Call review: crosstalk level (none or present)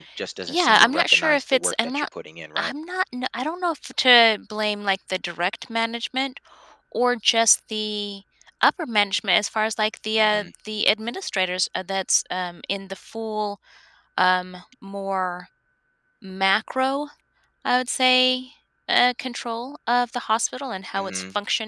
present